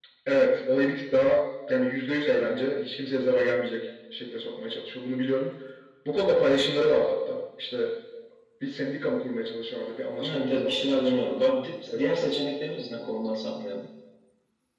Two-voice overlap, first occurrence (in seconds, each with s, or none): 10.2 s